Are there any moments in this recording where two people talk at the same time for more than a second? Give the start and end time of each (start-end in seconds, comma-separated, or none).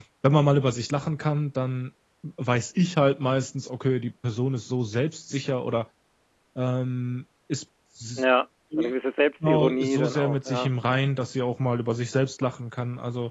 9.4-10.7